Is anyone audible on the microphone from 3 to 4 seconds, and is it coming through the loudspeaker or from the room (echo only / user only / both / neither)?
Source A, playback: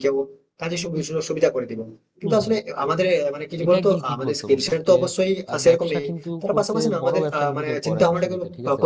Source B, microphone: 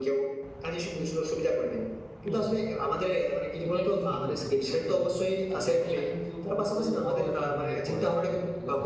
echo only